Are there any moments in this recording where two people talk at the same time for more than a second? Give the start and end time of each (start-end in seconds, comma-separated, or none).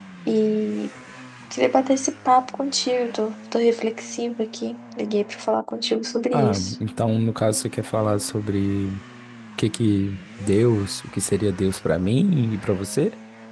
none